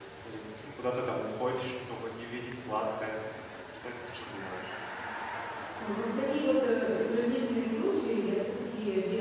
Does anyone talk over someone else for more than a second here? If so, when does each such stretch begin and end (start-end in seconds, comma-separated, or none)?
none